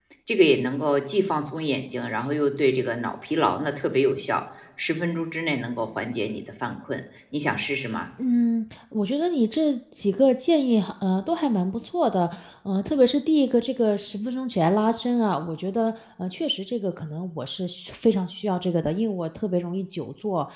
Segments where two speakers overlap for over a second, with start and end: none

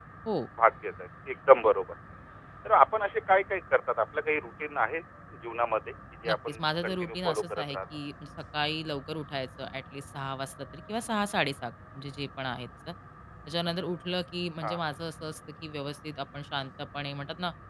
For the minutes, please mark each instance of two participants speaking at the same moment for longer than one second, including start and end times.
6.2-7.8

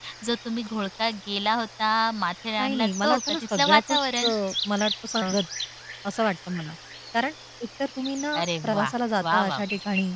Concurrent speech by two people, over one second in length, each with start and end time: 2.6-4.3

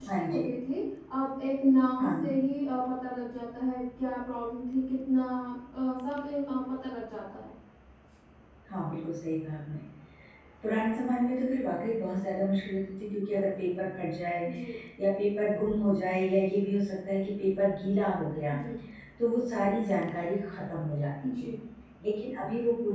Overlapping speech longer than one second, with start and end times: none

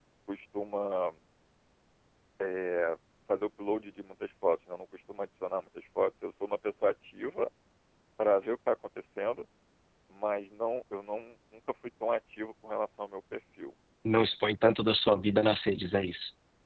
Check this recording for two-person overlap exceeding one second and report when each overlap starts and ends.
none

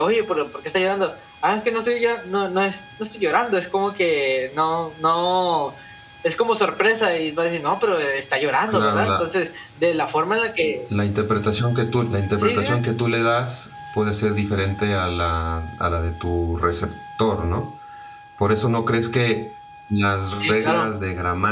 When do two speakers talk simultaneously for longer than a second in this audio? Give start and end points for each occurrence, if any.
none

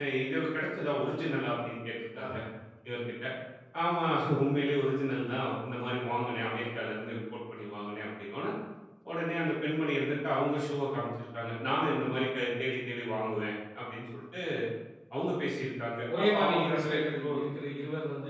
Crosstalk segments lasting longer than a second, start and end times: 16.1-17.4

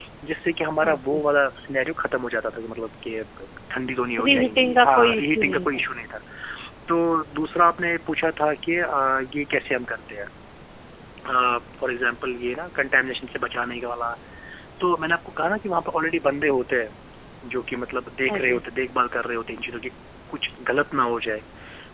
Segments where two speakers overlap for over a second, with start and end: 4.2-5.8

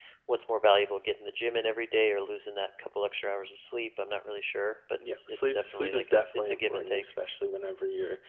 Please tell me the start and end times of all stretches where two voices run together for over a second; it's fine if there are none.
5.1-7.0

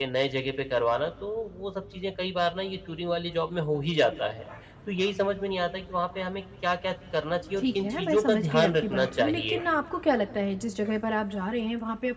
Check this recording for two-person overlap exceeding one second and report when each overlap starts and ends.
7.6-9.6

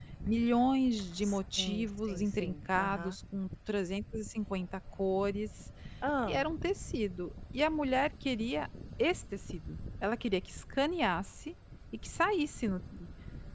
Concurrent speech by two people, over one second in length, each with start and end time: 1.2-3.1

